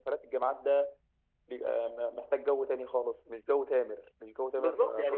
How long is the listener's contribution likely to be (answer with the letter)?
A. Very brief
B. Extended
B